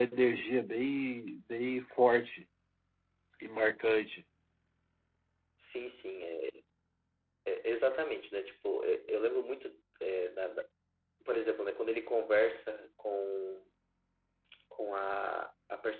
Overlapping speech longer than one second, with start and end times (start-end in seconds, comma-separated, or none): none